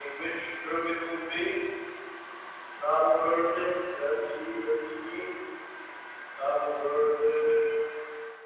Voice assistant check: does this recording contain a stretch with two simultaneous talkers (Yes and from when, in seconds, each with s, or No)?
No